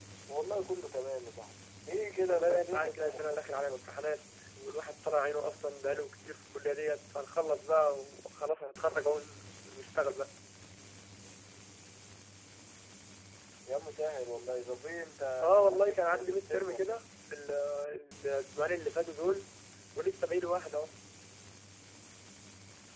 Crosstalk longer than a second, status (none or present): present